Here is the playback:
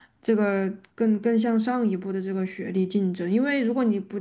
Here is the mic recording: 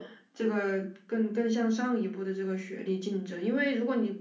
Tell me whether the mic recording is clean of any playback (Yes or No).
No